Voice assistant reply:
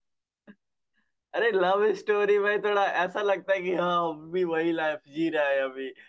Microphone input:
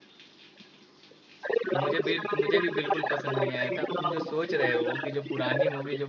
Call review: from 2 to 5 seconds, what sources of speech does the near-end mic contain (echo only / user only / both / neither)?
both